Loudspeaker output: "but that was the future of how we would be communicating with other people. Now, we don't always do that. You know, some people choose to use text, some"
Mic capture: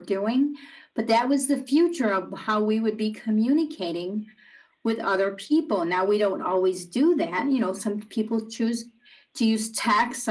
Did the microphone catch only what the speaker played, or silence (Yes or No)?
Yes